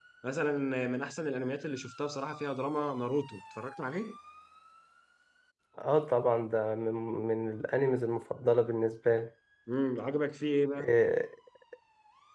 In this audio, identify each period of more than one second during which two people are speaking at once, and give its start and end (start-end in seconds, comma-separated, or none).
none